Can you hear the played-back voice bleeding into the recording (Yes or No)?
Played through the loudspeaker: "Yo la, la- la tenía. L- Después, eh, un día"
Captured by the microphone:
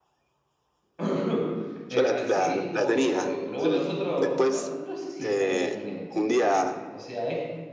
Yes